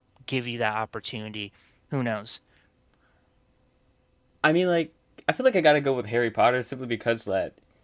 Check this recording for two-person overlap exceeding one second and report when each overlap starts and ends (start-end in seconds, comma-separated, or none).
none